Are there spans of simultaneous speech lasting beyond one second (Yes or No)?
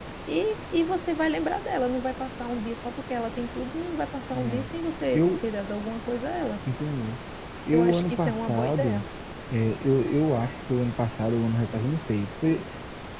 Yes